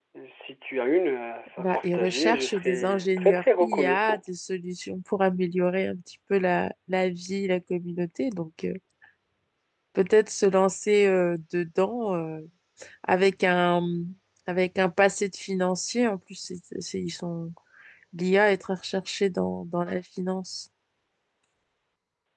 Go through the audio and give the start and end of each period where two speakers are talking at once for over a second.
1.6-4.2

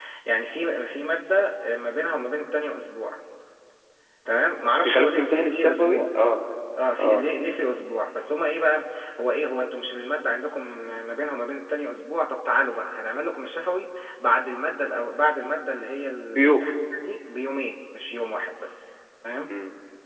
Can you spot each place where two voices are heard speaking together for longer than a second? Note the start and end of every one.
4.8-6.1

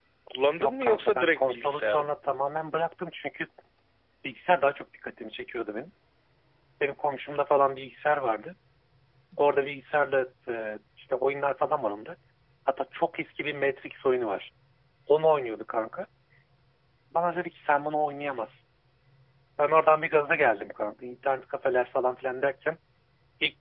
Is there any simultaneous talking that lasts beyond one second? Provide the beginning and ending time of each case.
0.6-2.1

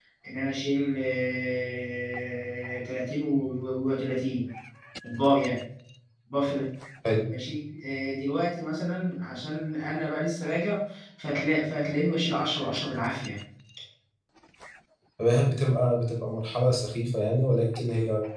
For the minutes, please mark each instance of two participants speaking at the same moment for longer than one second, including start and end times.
none

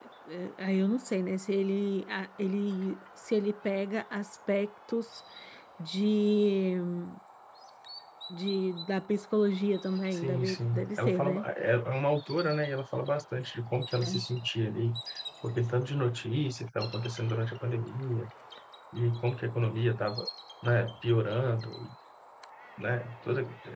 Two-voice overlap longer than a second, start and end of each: 10.1-11.4

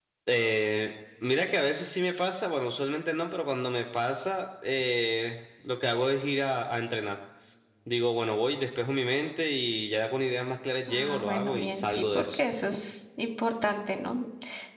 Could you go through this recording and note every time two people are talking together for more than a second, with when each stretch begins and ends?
10.9-12.4

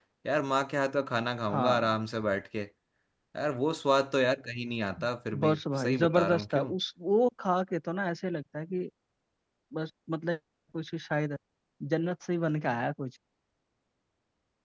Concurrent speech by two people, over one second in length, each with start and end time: 5.4-6.7

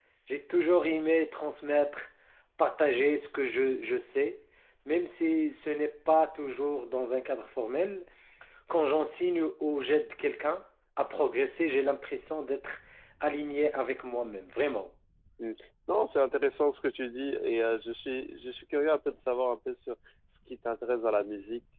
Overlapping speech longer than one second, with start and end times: none

